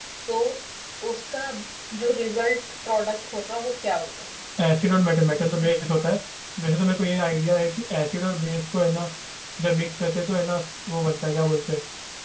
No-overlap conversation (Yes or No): Yes